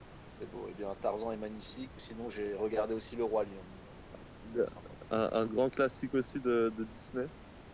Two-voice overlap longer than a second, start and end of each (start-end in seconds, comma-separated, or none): none